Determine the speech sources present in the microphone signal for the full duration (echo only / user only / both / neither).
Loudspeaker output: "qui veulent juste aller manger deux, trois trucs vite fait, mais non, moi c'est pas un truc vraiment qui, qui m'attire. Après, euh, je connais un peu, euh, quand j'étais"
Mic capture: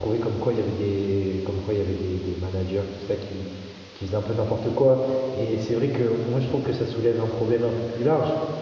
user only